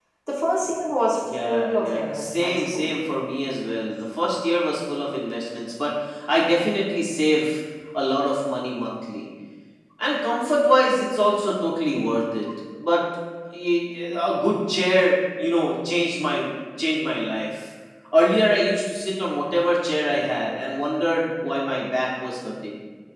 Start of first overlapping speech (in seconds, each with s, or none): 1.3 s